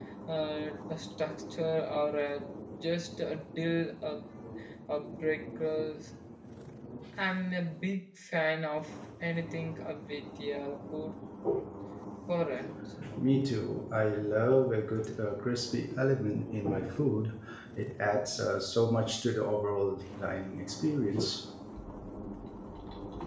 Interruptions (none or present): none